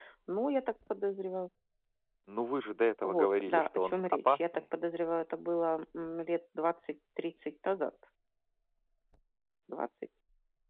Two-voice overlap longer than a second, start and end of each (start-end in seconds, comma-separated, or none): 3.0-4.6